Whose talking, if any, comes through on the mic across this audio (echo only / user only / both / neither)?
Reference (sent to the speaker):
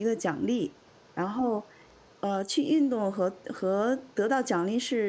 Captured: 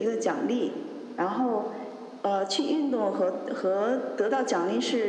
echo only